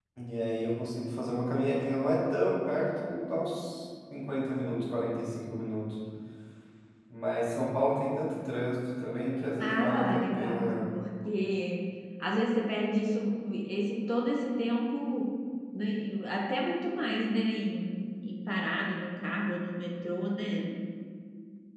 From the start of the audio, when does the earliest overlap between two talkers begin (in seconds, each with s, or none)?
9.6 s